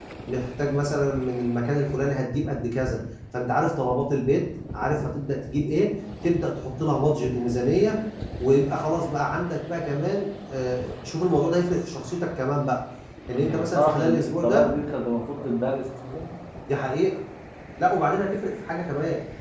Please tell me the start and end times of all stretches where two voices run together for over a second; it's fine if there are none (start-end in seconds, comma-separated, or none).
13.4-14.6